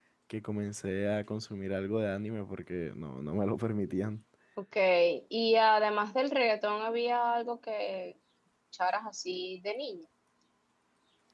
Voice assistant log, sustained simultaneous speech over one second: none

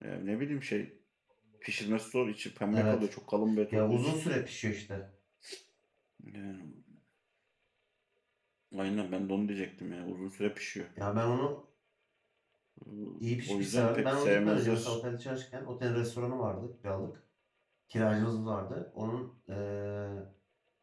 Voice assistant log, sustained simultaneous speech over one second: present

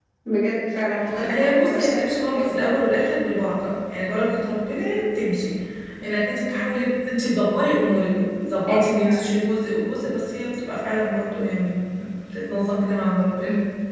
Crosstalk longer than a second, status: present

